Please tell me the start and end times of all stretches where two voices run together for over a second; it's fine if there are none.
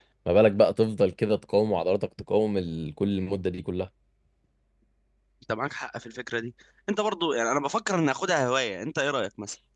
none

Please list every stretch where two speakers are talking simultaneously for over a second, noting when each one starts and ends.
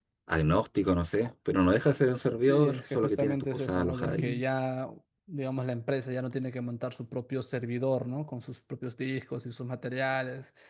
2.4-4.4

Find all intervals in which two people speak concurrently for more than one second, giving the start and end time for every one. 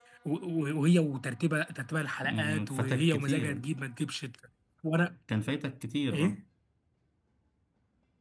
2.2-3.7

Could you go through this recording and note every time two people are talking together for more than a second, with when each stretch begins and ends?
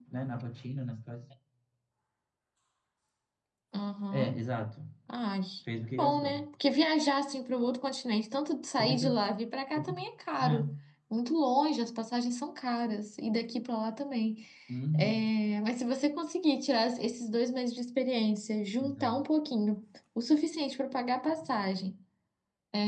none

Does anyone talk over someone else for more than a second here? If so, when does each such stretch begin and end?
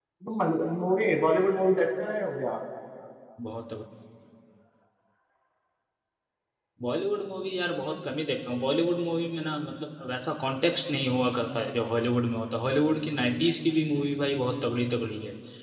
none

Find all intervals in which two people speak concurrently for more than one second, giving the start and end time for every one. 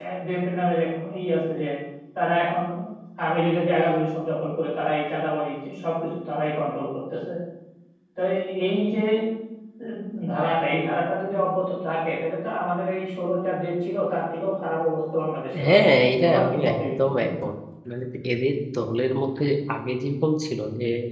16.2-17.5

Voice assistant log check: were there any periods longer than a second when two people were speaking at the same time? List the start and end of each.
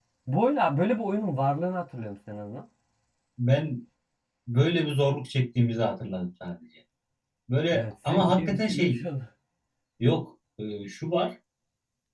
7.7-9.0

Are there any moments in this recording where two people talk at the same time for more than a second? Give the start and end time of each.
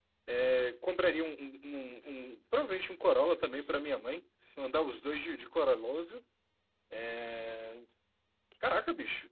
none

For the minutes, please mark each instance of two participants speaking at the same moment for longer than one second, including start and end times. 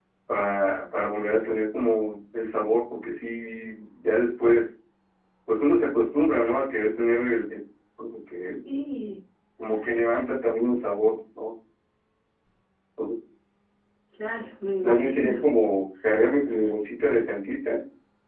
none

